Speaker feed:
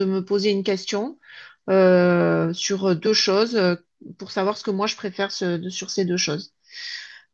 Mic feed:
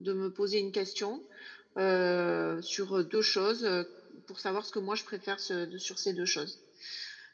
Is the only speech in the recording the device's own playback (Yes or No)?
Yes